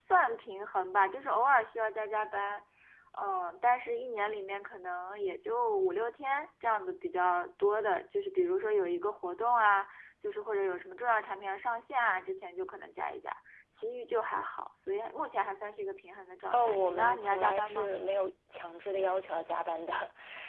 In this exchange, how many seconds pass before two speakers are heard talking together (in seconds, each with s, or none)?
16.5 s